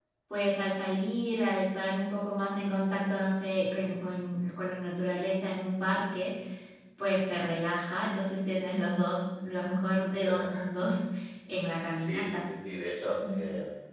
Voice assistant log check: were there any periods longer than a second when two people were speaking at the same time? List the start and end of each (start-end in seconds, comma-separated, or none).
none